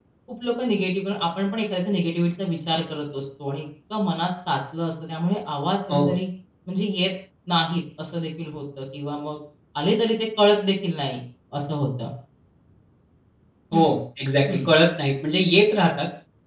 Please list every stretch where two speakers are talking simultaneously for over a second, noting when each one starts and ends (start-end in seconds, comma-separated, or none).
none